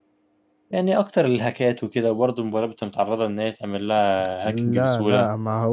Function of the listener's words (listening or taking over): taking over